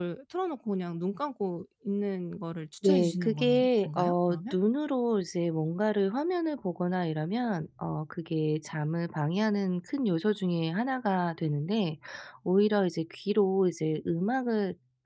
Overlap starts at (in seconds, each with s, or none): 2.8 s